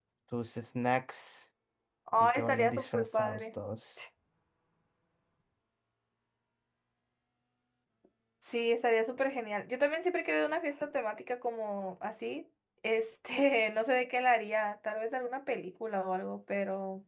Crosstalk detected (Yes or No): Yes